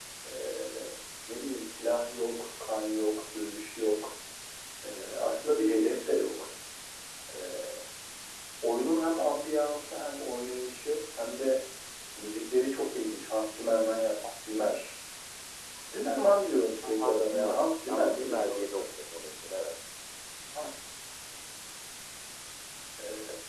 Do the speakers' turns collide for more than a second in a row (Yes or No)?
Yes